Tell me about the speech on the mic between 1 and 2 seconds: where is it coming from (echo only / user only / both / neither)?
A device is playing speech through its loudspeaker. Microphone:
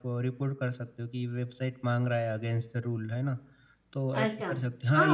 echo only